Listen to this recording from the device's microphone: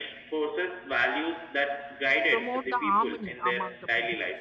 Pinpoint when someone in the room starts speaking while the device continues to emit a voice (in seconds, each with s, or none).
2.3 s